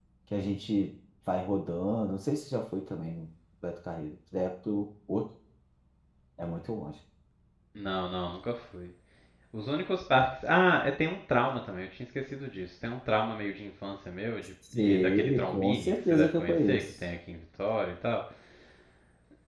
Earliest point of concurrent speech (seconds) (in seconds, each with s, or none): 14.6 s